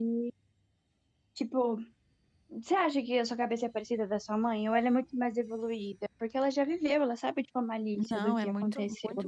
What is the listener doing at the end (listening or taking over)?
taking over